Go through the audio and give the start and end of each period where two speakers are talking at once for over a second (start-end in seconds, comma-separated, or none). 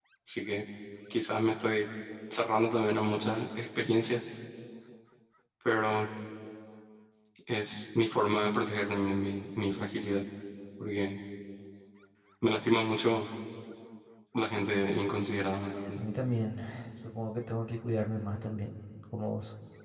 none